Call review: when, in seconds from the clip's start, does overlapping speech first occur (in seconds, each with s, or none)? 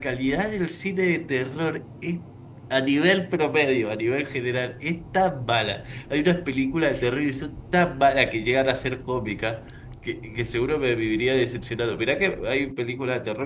none